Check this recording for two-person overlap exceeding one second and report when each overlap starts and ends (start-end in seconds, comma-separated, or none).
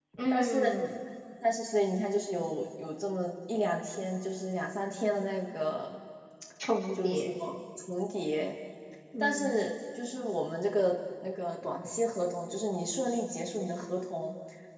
none